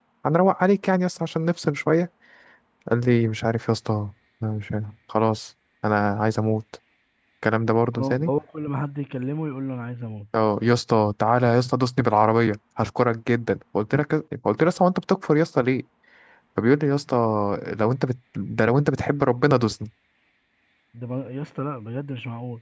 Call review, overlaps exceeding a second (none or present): none